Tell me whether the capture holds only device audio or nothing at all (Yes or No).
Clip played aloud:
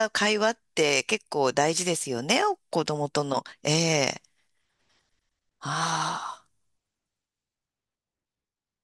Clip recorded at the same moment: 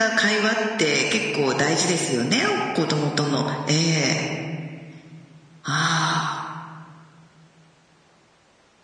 Yes